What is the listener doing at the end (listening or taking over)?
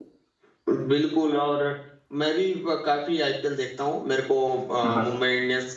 listening